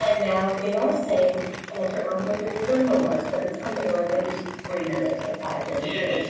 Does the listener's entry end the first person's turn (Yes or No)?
Yes